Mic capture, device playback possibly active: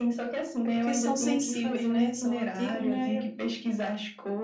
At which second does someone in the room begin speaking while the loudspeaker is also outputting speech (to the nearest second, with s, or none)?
1 s